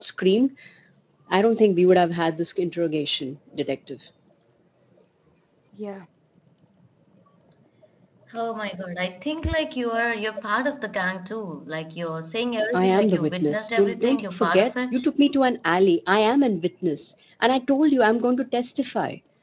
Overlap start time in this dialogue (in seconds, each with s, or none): 12.7 s